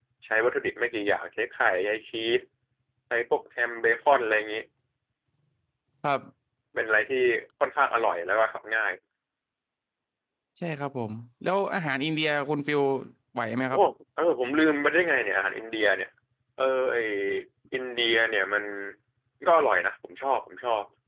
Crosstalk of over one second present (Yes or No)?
No